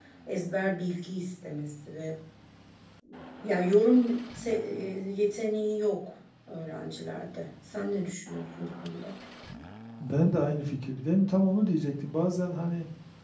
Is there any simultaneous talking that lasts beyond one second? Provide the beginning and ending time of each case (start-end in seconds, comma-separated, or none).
none